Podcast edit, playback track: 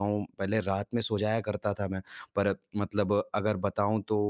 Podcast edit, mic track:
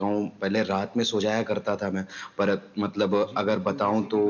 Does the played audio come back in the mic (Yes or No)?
Yes